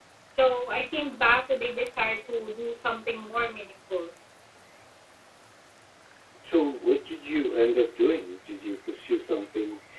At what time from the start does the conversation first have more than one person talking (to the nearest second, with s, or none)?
none